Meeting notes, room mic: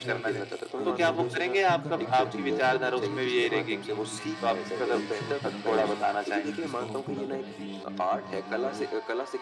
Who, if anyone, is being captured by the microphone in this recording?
both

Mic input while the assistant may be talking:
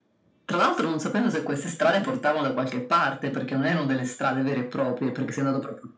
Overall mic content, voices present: echo only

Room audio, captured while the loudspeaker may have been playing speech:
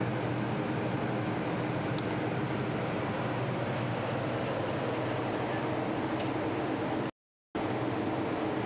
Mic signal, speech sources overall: neither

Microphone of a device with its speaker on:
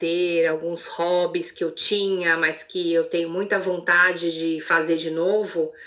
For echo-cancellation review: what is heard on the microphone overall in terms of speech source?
echo only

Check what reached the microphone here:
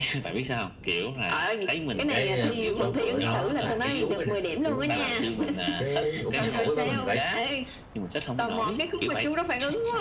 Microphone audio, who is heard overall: both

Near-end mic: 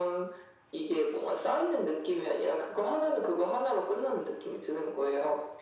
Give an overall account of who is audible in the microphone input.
echo only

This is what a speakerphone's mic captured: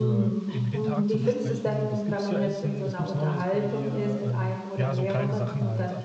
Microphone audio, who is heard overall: both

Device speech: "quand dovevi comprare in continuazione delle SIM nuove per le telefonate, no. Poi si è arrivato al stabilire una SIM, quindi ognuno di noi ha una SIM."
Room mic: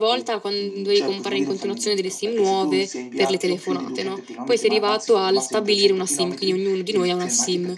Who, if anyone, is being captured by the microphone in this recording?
both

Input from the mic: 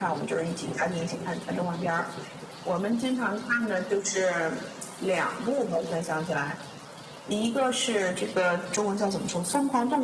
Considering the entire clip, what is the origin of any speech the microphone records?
echo only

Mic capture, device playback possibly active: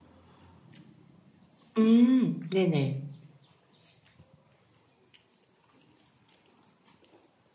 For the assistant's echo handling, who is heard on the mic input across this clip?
user only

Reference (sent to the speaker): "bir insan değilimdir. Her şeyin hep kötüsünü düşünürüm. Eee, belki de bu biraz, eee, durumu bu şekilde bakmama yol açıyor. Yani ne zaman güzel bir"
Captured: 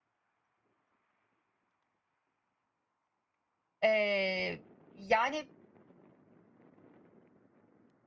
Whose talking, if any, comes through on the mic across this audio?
user only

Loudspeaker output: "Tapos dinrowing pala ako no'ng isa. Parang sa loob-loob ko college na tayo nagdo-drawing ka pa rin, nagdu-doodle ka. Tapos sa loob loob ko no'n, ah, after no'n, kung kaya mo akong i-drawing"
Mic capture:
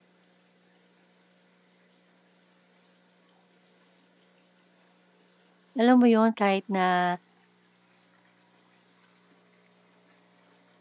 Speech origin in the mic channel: user only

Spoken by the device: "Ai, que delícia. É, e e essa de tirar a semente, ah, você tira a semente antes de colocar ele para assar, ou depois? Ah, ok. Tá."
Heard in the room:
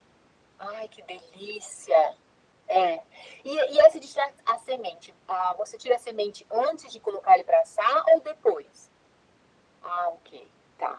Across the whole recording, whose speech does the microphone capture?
echo only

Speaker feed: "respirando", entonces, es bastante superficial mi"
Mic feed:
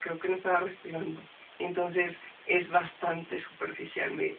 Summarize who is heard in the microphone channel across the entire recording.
echo only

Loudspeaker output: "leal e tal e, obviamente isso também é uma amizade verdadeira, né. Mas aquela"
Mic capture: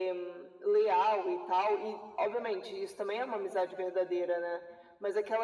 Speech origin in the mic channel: echo only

